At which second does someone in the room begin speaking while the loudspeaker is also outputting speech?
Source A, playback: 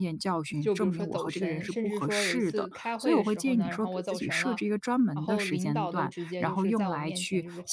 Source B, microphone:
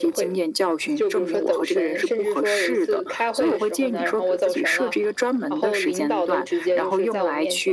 none

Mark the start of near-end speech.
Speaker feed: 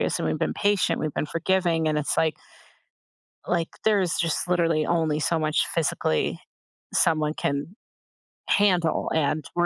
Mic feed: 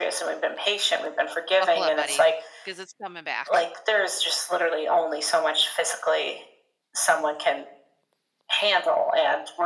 2 s

